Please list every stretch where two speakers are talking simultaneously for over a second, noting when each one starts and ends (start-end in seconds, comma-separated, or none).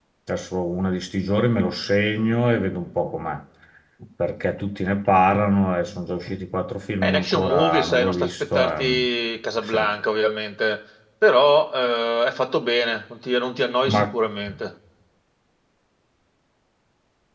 7.0-9.0